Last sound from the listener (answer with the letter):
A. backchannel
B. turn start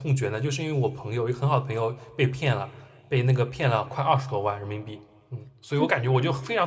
A